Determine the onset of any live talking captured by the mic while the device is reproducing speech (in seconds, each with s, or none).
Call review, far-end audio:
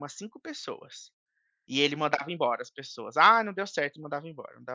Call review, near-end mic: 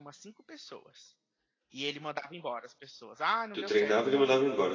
3.5 s